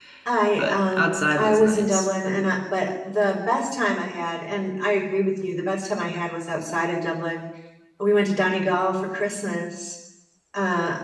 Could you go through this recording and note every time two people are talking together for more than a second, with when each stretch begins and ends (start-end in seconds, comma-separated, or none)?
0.6-2.1